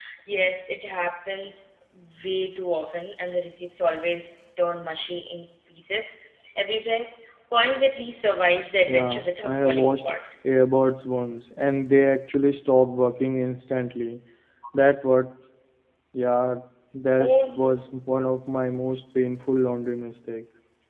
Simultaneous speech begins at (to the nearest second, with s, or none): 9 s